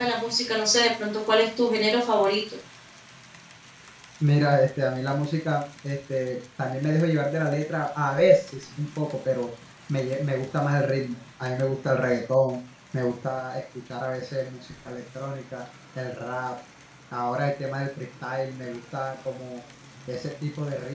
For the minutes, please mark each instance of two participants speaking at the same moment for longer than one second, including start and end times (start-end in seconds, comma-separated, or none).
none